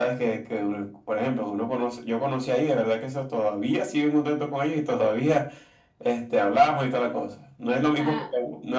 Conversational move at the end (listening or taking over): listening